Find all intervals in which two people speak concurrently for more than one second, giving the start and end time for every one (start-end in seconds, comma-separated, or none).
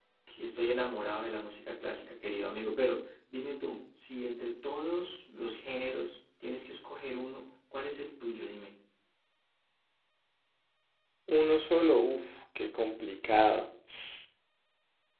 none